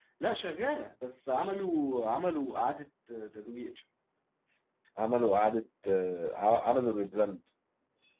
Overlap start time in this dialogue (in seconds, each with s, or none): none